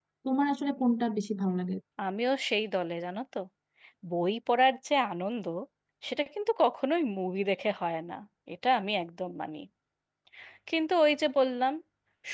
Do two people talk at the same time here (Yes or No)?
No